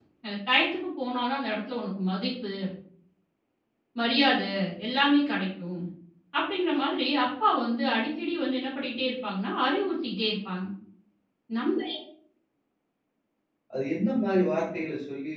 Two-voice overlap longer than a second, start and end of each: none

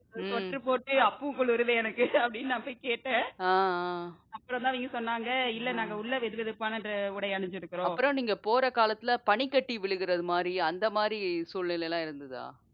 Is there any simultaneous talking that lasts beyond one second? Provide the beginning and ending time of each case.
none

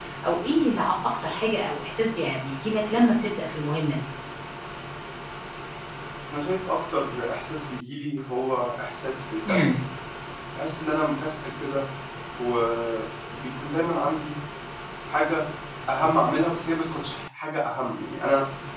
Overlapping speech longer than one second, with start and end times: none

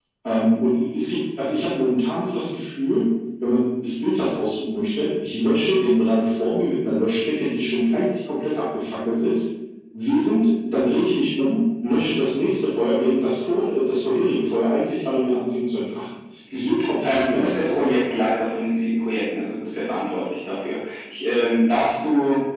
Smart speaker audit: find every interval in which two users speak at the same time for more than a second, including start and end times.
16.5-17.8

